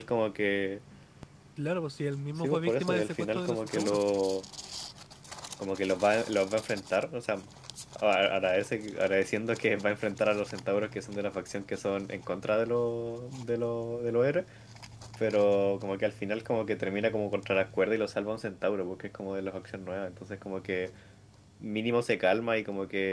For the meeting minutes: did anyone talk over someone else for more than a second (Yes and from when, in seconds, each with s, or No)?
Yes, from 2.4 s